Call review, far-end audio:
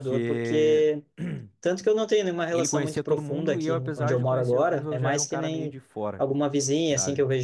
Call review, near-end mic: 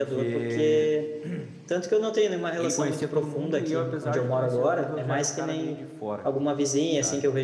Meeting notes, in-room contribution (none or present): none